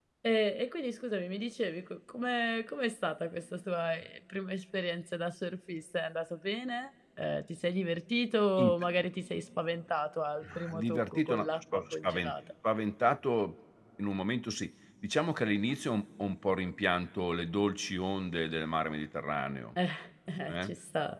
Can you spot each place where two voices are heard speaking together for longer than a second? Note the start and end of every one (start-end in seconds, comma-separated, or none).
10.4-12.3